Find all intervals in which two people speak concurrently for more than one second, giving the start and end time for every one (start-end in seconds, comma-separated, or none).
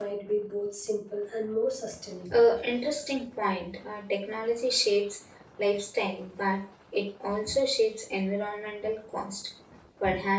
none